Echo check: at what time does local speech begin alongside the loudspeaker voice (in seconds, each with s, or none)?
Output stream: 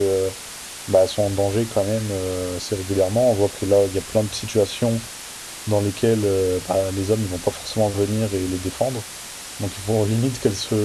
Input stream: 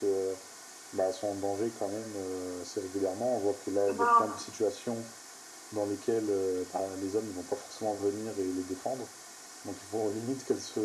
3.9 s